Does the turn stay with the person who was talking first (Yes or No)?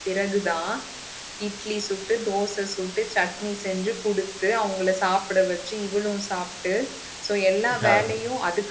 Yes